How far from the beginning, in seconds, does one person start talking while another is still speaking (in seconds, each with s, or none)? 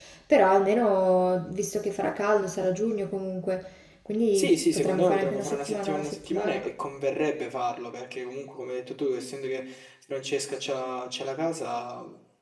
4.3 s